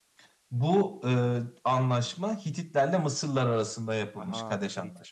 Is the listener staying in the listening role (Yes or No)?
Yes